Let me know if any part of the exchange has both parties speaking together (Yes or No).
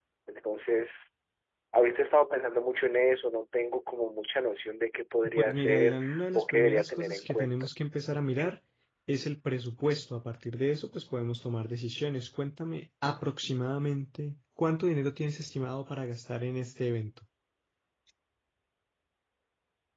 Yes